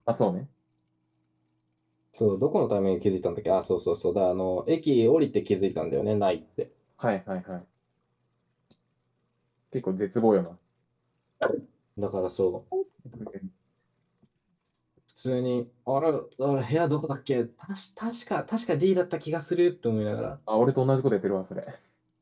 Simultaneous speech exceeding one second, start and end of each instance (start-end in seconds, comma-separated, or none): none